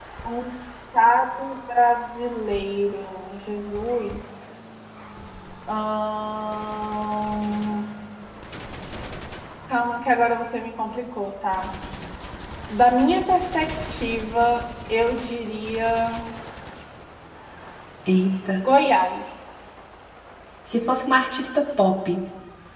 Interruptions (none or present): none